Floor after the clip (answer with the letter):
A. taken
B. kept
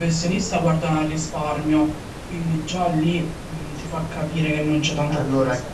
A